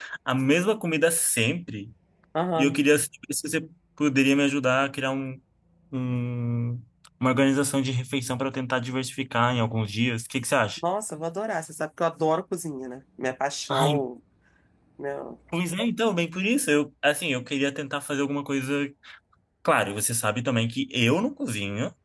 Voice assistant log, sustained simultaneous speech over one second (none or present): none